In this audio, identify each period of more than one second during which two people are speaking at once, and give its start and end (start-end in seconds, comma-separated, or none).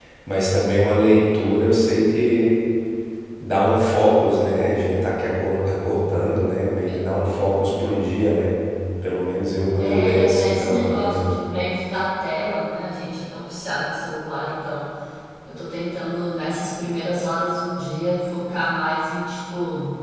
9.8-11.2